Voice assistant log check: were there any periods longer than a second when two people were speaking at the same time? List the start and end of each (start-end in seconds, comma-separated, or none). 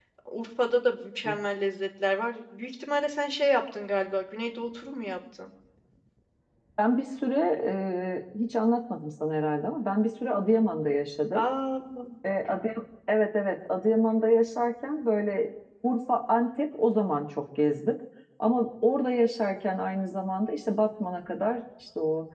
none